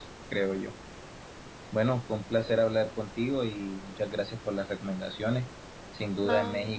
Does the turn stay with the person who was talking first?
Yes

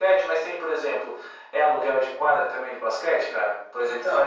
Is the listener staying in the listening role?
No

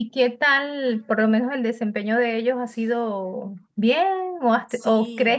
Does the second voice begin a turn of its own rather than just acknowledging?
No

